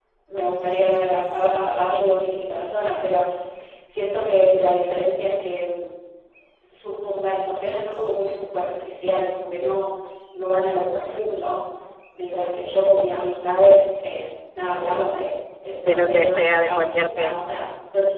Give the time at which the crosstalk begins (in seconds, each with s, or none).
15.9 s